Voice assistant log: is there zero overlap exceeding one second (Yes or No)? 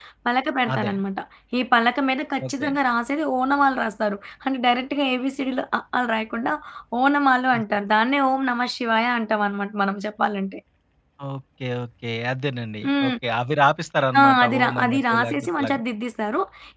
No